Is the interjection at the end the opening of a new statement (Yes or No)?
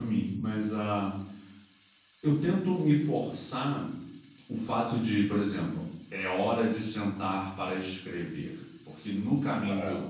No